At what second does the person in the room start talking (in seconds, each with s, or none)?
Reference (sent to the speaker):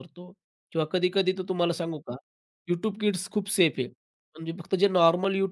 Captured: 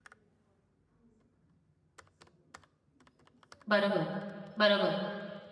3.7 s